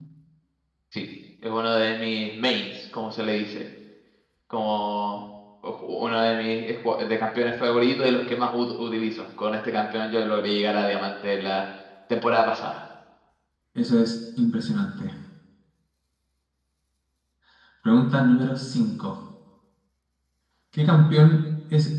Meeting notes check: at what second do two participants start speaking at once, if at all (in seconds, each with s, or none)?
none